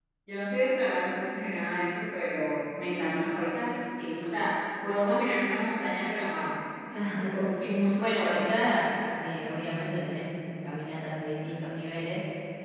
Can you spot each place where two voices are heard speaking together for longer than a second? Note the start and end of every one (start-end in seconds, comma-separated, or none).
none